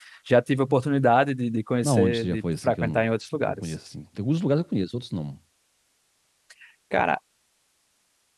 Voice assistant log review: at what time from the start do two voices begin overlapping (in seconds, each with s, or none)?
1.8 s